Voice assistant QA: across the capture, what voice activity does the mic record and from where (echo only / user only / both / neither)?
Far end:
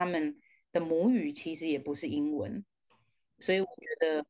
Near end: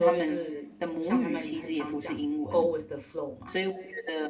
both